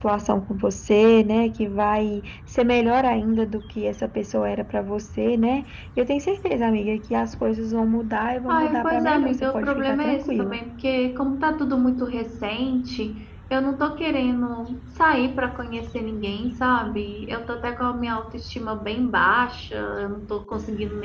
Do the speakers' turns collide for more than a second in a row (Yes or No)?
Yes